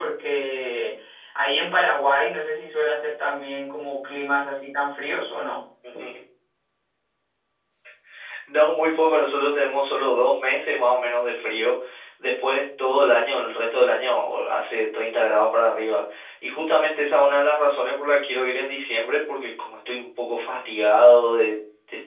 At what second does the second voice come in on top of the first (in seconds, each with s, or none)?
none